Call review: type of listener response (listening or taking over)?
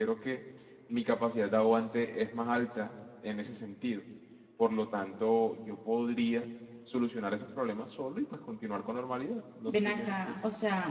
taking over